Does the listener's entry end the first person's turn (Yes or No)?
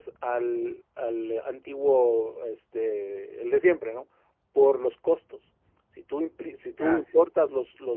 No